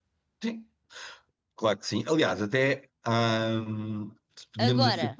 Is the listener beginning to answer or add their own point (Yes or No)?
No